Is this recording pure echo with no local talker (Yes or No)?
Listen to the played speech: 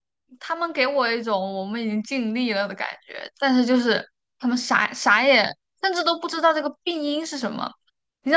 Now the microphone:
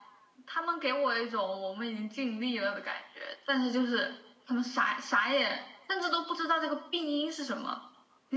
Yes